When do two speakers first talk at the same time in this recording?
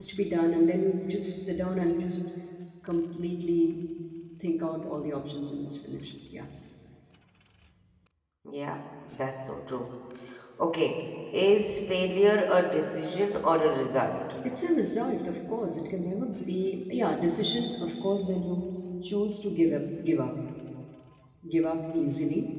none

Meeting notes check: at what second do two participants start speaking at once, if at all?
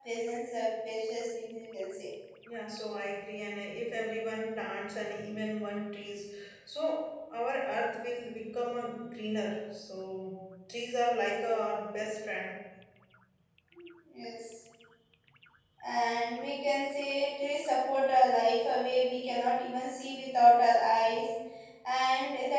none

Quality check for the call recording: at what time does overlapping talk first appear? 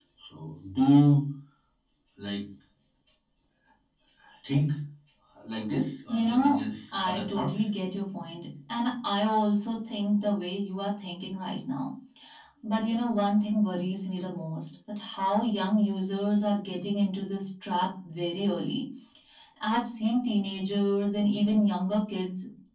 6.1 s

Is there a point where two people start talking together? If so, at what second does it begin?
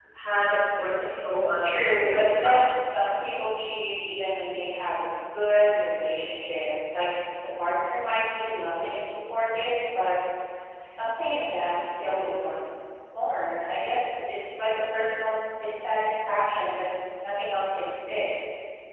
1.6 s

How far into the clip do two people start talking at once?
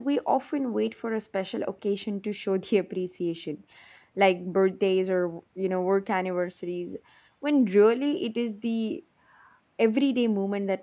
none

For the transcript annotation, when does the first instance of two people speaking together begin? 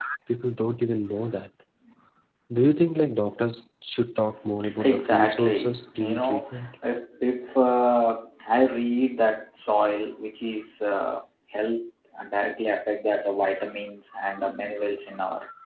4.6 s

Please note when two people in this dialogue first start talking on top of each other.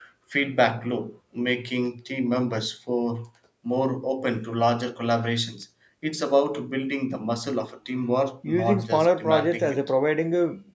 8.4 s

